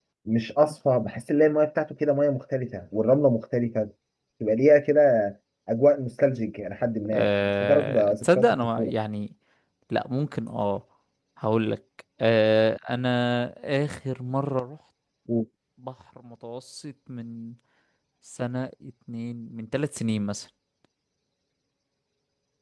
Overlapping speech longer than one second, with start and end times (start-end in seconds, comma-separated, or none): 7.1-8.9